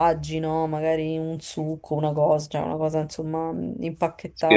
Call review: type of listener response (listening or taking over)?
taking over